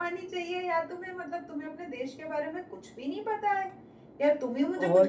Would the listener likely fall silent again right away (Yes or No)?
Yes